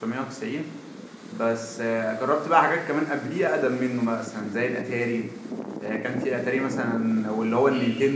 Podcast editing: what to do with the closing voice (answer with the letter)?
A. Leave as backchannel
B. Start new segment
A